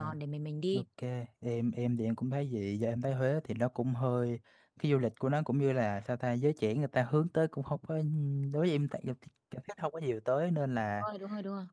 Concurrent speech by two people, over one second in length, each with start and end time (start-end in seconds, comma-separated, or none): none